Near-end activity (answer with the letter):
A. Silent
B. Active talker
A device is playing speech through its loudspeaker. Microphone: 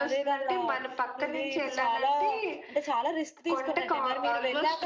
B